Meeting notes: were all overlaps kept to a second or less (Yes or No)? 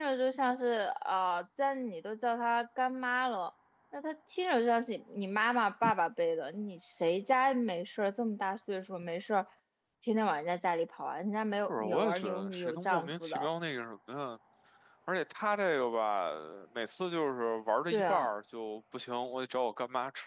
No